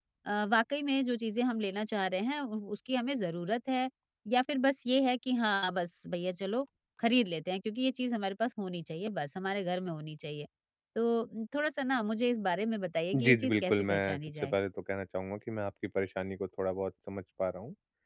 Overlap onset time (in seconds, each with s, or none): 13.1 s